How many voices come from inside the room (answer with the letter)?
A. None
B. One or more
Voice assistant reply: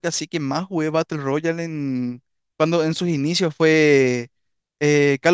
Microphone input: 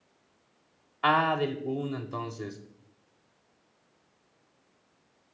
B